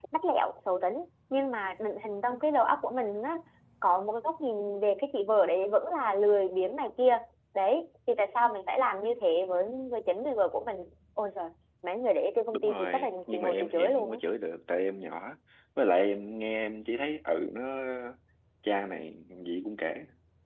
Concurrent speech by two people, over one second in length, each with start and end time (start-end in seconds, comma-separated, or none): 12.5-14.2